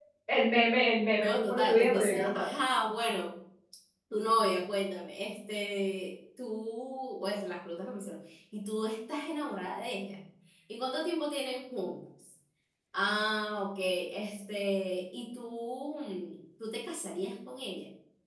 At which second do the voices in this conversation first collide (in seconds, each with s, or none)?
1.2 s